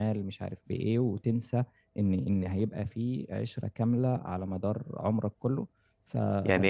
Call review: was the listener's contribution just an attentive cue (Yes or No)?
No